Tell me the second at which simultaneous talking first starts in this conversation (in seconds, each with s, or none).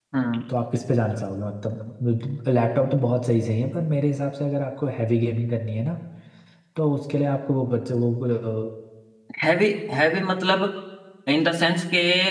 none